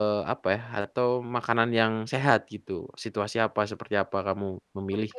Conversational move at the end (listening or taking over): taking over